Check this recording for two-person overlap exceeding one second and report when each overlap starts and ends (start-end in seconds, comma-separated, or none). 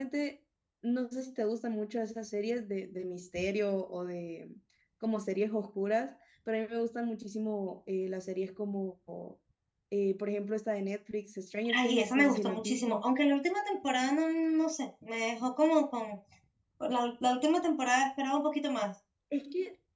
11.7-13.0